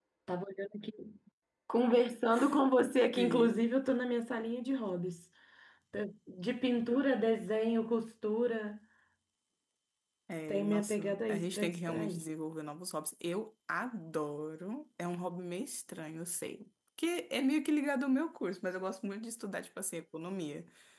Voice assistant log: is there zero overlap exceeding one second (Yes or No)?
No